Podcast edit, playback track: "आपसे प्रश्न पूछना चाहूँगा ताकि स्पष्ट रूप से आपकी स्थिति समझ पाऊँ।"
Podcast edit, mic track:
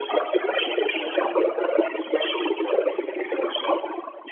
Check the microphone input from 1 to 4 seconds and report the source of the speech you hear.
echo only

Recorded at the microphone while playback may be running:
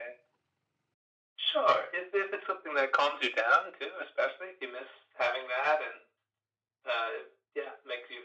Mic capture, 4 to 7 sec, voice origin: echo only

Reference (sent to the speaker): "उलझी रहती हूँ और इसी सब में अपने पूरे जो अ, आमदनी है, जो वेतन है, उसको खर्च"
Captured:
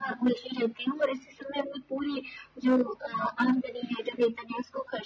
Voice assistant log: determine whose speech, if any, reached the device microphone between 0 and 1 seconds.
echo only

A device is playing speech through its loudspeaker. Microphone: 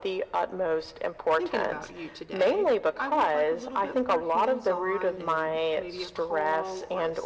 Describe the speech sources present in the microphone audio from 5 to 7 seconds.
both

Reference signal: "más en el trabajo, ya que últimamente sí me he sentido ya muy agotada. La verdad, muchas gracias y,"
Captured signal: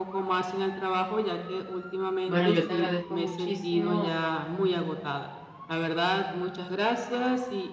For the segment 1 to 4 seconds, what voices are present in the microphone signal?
both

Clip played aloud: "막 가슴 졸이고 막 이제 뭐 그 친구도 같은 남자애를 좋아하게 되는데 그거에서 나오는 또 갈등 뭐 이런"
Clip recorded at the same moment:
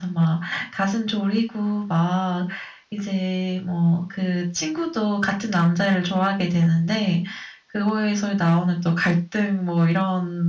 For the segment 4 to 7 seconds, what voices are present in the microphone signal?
echo only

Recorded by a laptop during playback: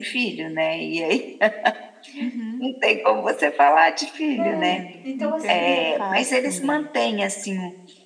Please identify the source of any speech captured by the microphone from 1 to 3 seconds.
echo only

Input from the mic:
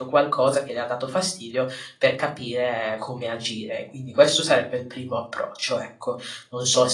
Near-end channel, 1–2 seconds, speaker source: user only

